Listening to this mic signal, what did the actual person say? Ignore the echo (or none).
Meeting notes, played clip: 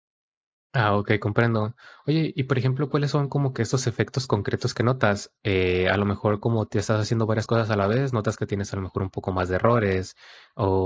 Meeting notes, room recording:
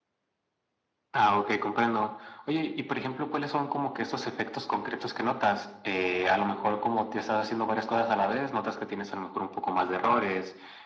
none